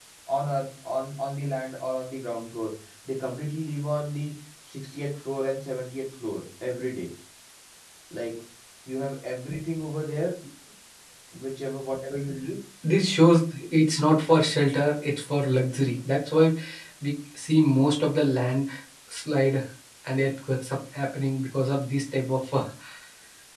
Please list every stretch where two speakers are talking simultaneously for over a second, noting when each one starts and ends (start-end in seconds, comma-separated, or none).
none